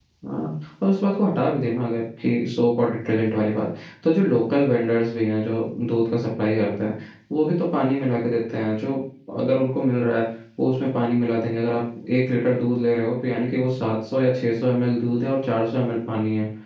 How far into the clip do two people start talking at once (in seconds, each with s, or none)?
none